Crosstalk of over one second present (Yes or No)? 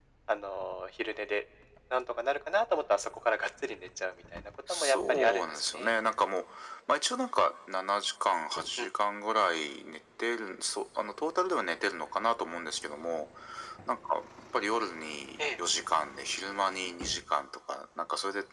Yes